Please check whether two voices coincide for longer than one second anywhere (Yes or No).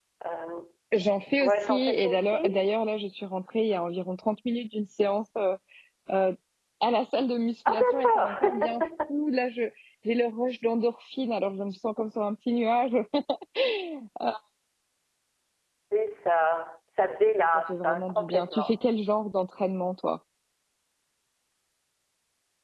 Yes